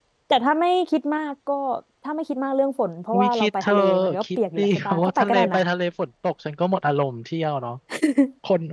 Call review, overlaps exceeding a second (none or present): present